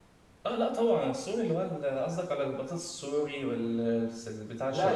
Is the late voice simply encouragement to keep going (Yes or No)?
No